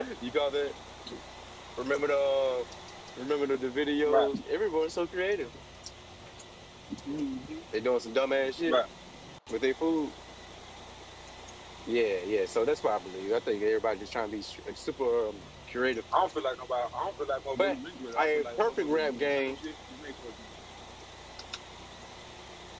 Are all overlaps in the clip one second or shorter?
No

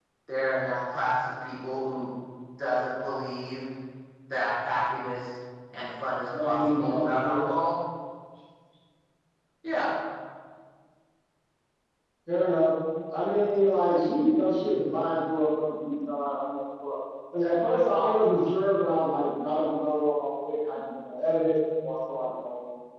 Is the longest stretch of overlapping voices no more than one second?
No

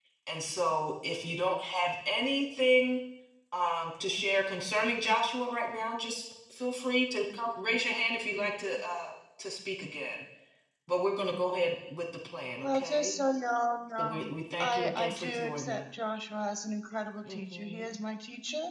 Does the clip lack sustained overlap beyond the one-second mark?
No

